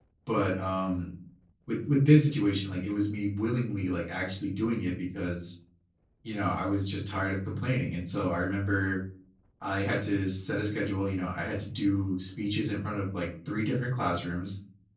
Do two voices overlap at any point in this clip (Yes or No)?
No